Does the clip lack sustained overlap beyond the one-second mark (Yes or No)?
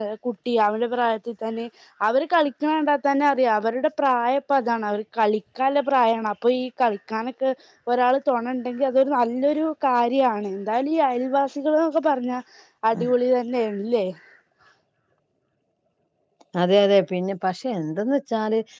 Yes